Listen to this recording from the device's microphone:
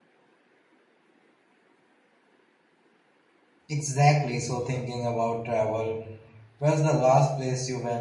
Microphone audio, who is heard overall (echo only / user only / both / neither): user only